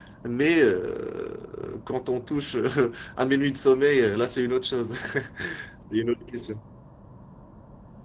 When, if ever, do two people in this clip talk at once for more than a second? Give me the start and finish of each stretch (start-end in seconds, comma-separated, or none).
none